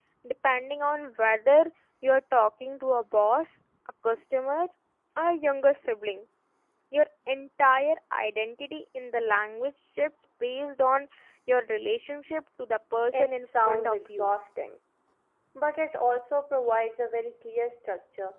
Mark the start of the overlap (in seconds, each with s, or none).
13.1 s